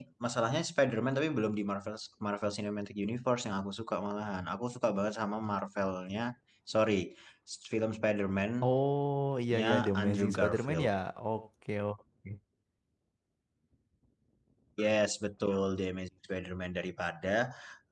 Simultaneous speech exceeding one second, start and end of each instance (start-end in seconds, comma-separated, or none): 9.6-10.9